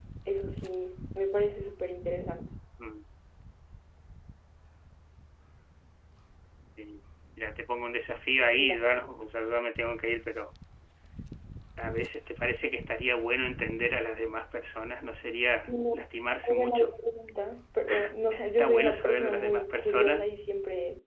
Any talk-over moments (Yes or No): Yes